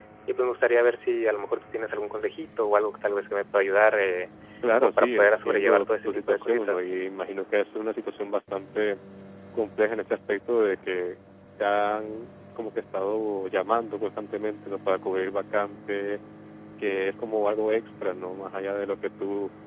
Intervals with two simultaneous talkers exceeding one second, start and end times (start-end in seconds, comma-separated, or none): 4.8-6.8